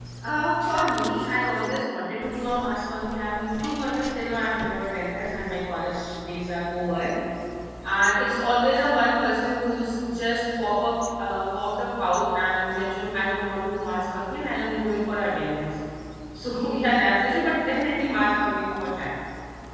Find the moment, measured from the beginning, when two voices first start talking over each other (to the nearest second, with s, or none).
none